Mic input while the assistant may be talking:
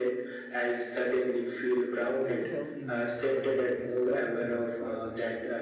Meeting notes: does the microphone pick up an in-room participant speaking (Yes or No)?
Yes